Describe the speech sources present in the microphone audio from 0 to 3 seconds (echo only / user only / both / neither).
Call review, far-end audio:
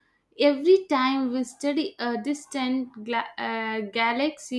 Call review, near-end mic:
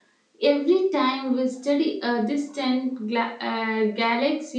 echo only